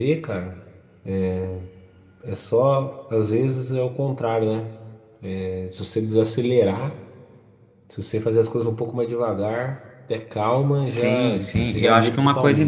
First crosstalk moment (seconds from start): 11 s

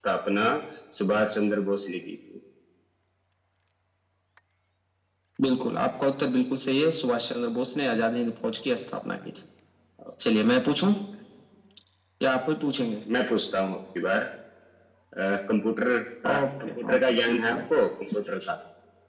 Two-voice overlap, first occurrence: 16 s

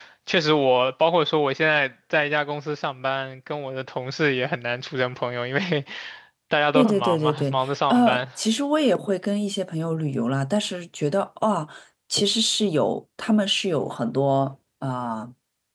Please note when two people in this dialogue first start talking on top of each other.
7 s

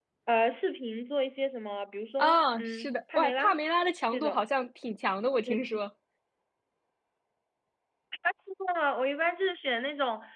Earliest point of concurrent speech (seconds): 2 s

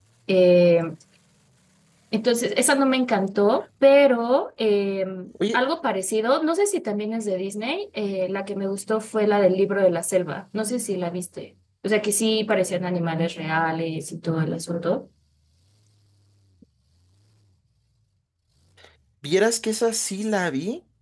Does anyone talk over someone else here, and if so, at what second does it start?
none

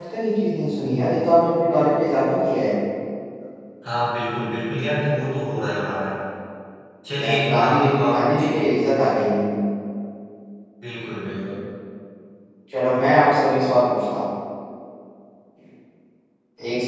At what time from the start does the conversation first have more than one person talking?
7 s

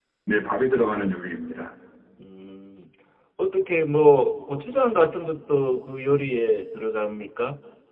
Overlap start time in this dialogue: none

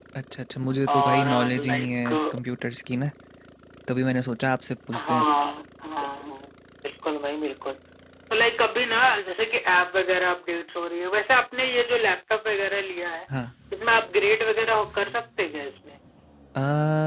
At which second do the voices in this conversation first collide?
1 s

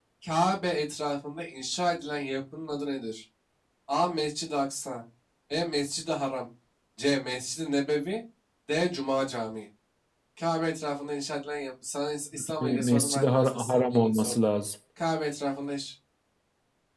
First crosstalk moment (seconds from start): 13 s

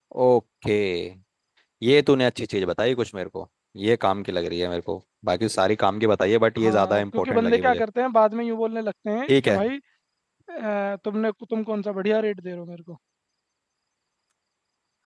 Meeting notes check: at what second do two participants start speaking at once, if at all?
7 s

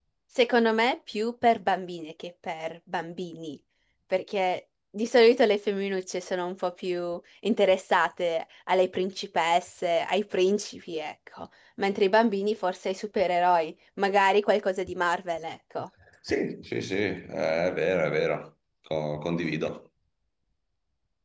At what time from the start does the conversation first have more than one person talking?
none

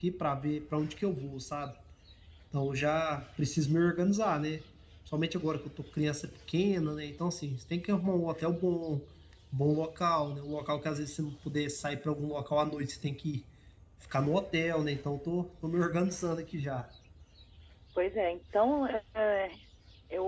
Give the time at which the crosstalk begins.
none

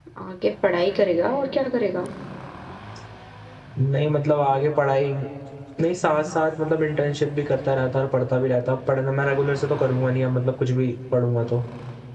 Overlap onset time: none

